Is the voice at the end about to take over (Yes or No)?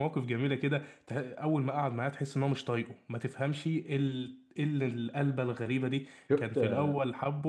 No